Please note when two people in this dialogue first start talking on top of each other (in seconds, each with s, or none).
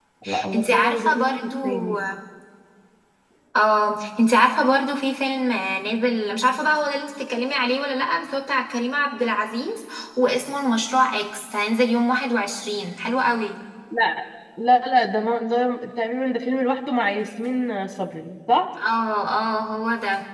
0.5 s